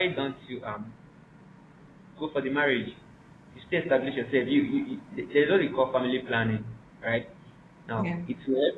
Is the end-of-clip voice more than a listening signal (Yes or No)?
No